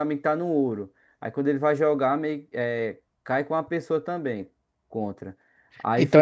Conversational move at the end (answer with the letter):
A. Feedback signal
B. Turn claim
A